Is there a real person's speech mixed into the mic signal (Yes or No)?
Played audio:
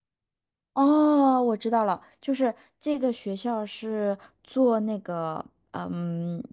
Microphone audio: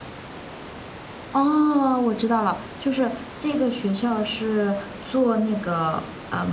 No